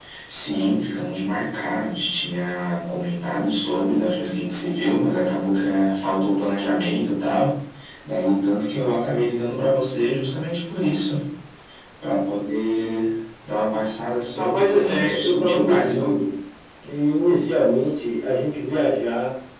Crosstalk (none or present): present